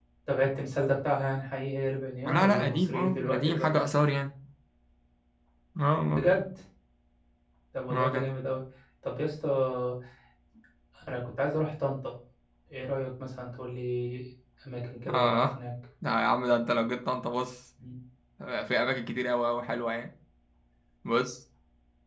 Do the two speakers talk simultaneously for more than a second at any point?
Yes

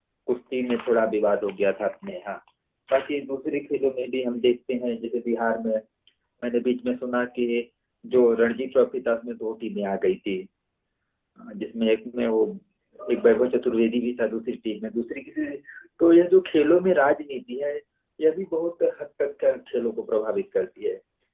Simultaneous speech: No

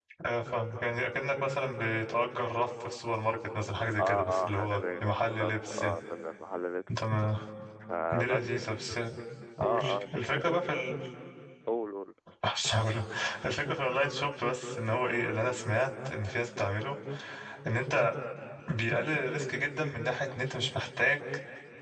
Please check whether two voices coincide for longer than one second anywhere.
Yes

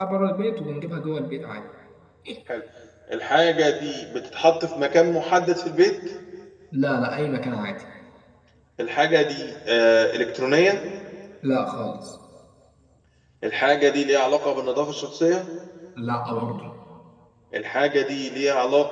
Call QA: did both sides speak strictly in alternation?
Yes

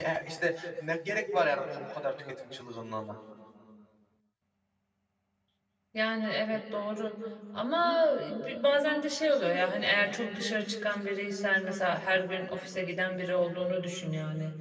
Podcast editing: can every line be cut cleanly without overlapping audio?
Yes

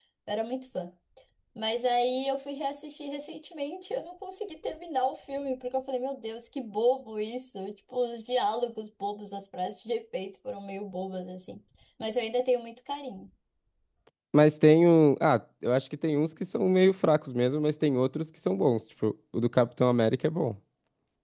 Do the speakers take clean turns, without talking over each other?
Yes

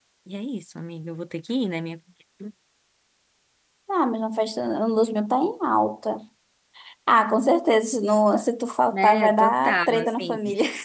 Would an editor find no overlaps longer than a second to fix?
No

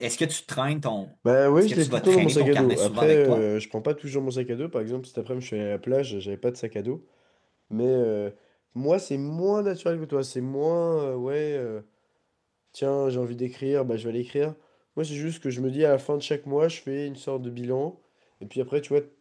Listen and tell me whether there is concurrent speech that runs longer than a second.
Yes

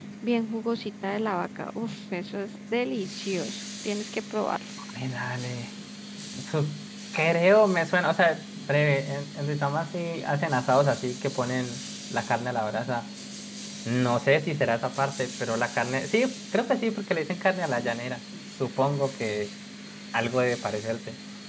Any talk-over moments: No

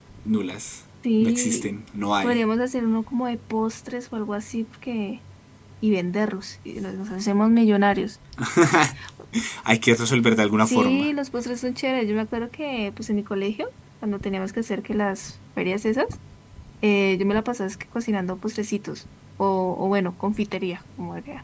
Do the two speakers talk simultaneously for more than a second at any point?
No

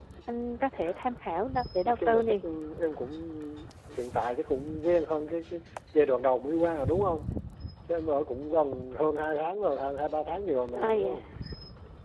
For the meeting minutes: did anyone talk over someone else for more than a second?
No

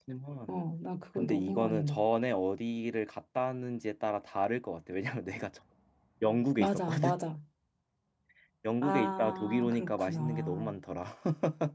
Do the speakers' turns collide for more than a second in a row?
Yes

